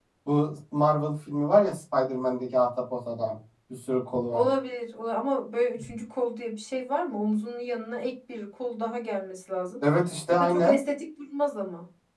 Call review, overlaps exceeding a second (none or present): none